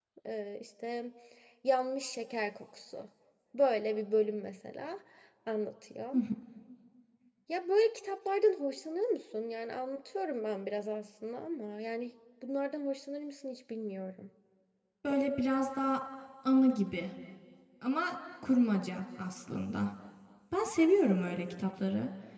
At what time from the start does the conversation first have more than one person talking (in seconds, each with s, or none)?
none